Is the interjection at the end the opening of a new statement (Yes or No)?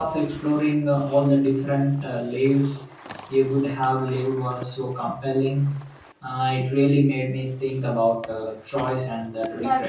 Yes